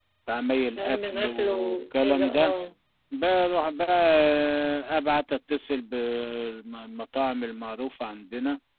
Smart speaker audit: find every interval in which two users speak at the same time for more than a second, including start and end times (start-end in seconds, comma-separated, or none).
0.8-2.5